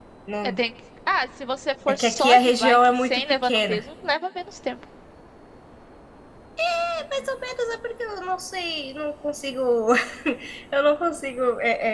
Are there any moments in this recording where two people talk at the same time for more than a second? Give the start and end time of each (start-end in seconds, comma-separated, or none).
1.9-3.8